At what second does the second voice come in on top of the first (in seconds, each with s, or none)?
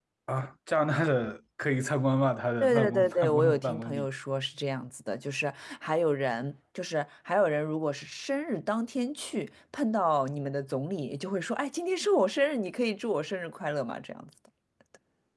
2.6 s